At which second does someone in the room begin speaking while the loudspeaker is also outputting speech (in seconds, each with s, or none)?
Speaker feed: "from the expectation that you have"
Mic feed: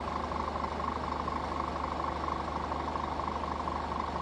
none